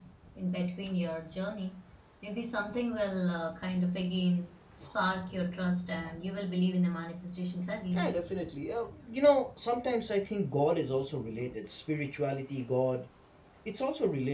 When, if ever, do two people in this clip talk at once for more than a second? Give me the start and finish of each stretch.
none

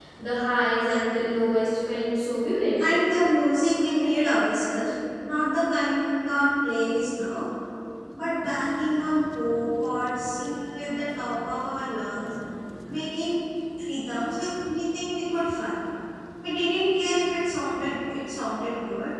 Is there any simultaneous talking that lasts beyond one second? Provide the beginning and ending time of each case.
none

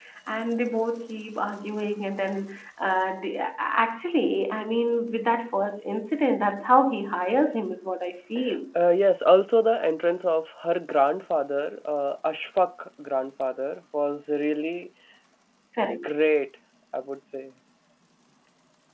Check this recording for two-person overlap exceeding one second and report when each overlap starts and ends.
none

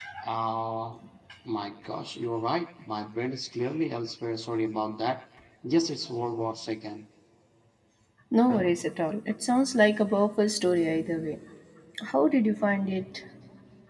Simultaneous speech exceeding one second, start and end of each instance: none

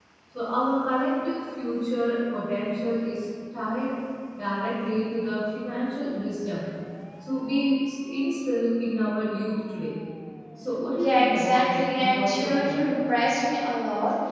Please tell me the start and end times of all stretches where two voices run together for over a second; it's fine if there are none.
11.0-12.9

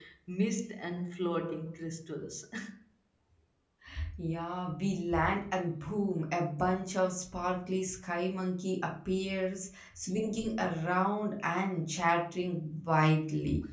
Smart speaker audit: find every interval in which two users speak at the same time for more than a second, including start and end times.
none

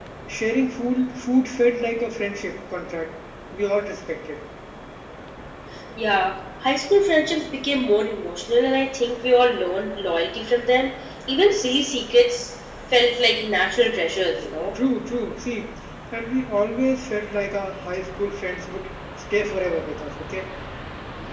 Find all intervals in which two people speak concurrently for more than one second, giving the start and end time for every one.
none

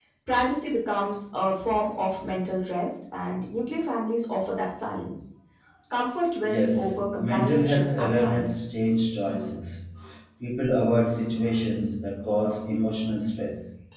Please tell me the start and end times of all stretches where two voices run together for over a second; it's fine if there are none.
6.5-8.7

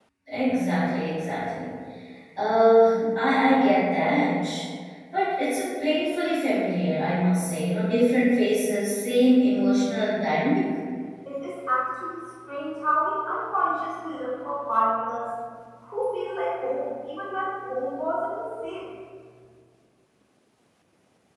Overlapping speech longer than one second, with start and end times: none

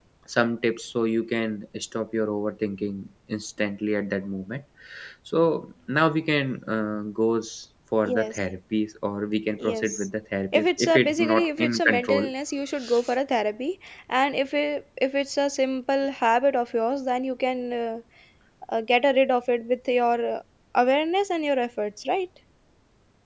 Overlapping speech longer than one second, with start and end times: 10.5-12.2

